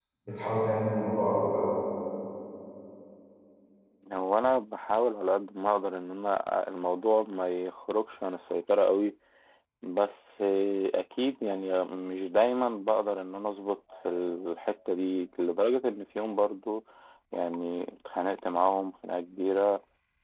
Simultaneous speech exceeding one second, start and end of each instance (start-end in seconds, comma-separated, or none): none